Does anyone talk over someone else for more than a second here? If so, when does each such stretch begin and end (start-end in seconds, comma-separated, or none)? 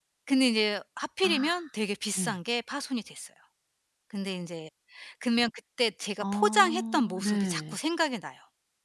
6.2-7.8